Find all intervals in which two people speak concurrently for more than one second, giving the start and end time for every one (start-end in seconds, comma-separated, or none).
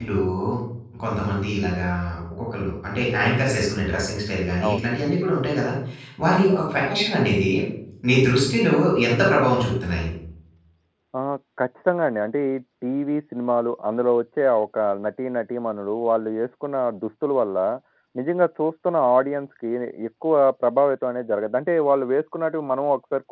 none